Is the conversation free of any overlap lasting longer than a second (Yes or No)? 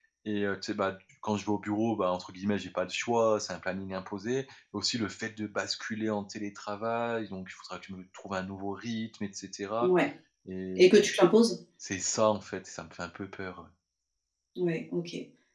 Yes